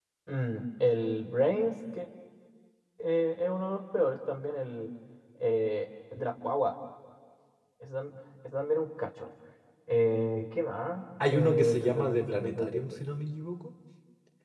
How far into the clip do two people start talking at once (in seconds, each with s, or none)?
11.2 s